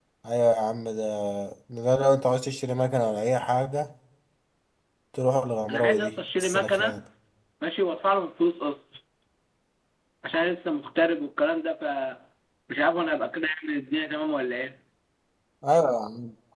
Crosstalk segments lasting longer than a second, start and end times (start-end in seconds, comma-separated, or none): 5.7-7.0